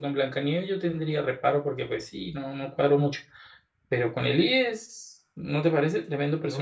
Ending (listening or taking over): taking over